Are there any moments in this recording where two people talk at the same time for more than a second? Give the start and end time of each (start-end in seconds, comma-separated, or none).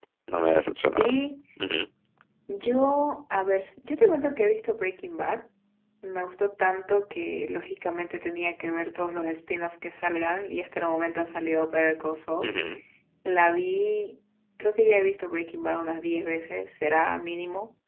none